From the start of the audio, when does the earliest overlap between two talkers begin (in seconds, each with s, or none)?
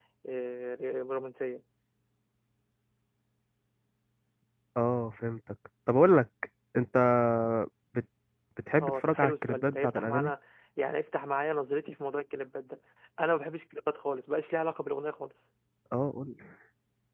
8.8 s